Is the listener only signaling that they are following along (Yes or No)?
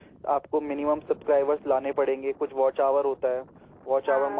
Yes